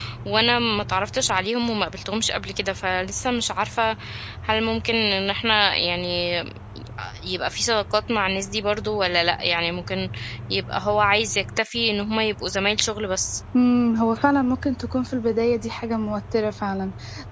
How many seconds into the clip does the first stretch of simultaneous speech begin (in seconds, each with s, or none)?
none